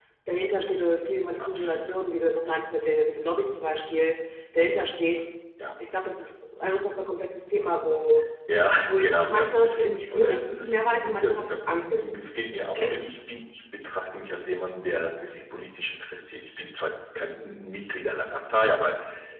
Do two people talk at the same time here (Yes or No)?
Yes